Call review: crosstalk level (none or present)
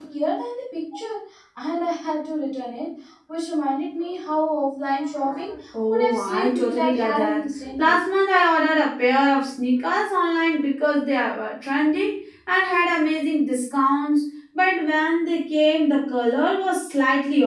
present